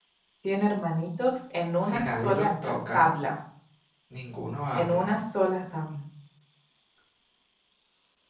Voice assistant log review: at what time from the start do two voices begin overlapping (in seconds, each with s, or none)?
1.9 s